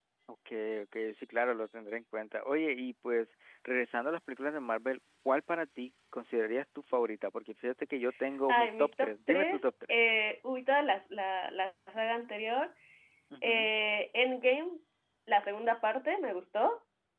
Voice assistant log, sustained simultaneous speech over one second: present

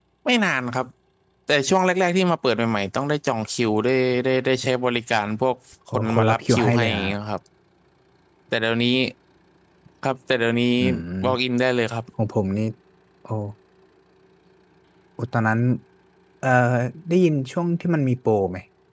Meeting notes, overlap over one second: present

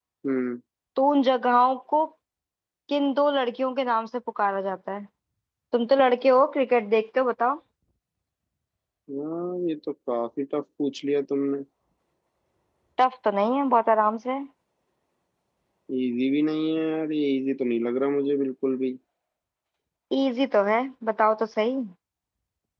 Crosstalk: none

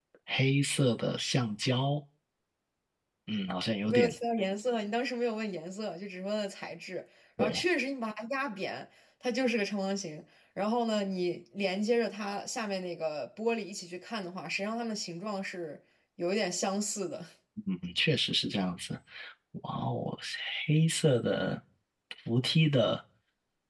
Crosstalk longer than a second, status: none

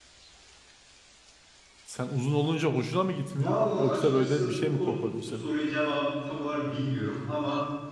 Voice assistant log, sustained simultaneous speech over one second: present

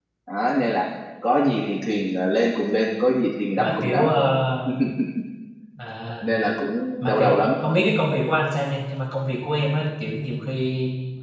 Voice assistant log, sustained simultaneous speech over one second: none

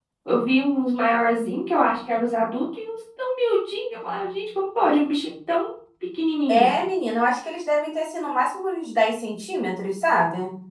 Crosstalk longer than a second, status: none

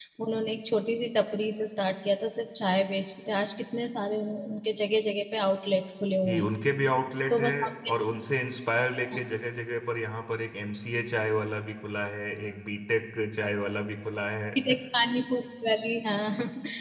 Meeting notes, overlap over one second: none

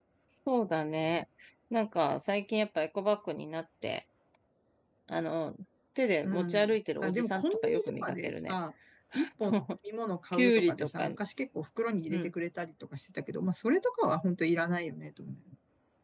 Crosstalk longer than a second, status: present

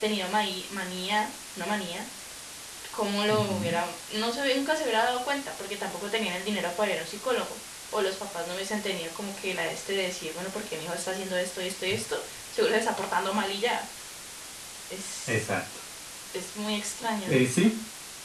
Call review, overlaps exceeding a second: none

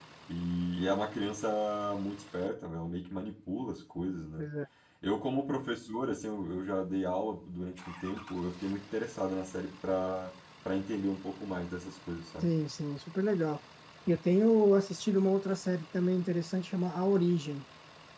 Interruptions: none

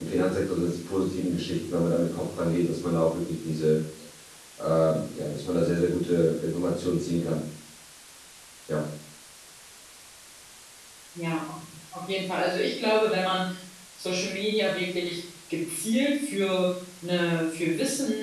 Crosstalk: none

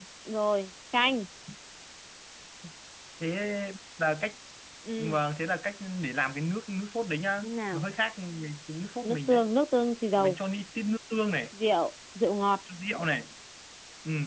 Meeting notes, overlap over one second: none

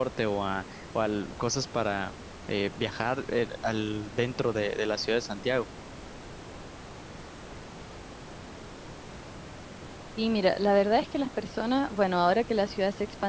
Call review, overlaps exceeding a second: none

